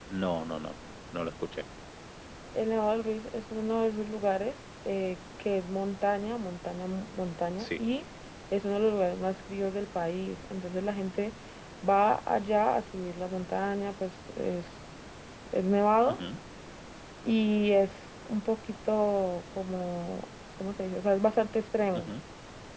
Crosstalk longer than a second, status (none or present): none